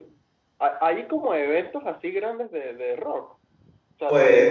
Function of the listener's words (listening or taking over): listening